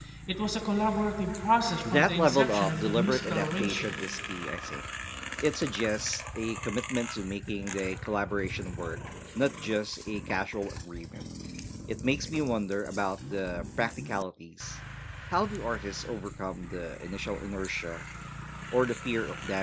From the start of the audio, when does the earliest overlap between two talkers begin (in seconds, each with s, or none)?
1.9 s